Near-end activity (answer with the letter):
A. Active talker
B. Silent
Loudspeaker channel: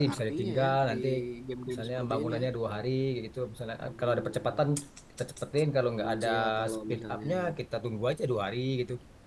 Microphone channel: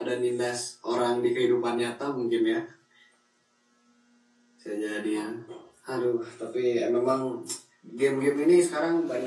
A